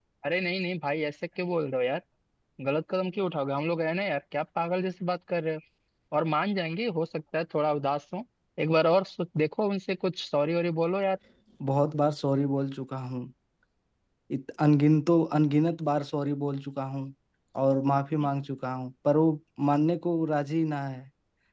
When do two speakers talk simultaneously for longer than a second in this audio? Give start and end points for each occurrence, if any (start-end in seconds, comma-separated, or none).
none